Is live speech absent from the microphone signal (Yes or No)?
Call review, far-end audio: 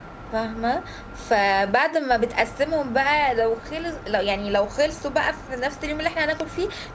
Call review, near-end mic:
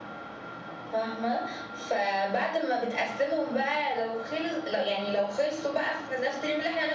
Yes